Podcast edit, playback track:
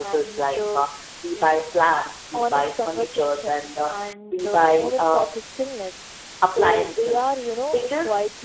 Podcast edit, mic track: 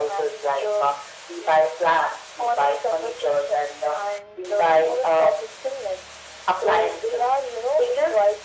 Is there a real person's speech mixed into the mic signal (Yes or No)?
No